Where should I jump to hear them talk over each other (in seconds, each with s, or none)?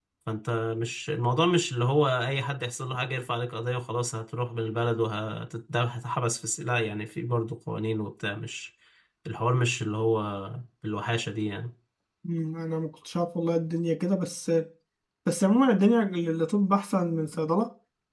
none